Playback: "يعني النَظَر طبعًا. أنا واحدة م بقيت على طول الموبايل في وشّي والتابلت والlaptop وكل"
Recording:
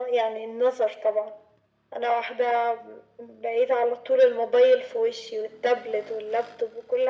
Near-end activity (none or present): none